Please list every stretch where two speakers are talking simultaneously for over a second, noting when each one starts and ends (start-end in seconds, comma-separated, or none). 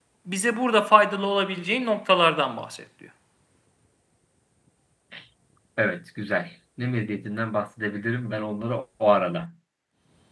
none